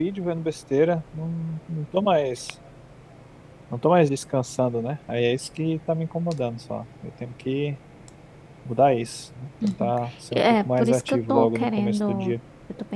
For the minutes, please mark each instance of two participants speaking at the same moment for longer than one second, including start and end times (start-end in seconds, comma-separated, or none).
10.3-12.3